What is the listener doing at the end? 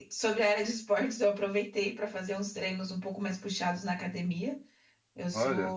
listening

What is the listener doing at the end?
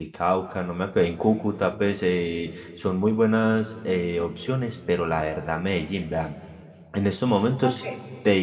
listening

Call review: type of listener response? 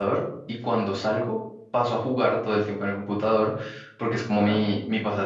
listening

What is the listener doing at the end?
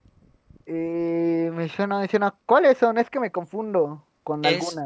taking over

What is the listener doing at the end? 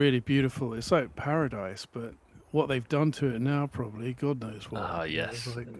taking over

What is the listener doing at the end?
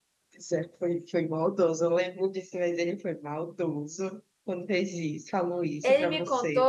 taking over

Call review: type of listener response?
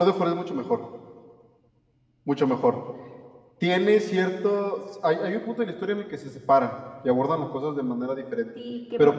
taking over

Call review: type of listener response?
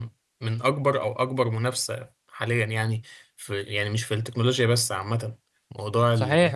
taking over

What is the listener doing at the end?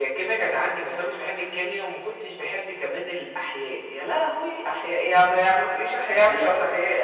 taking over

